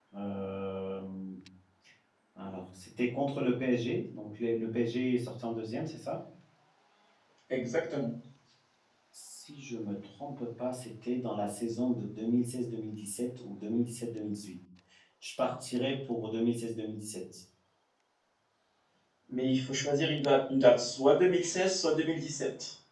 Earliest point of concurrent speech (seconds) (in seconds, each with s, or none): none